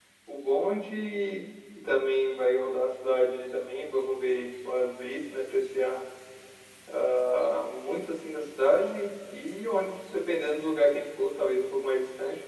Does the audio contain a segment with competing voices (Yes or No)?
No